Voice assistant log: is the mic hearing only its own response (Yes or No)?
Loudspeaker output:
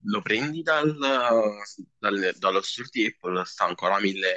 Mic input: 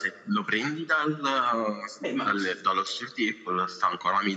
No